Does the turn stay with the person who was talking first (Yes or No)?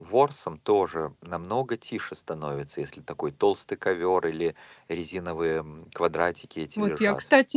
No